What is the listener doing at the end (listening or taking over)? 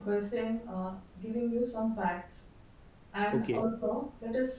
listening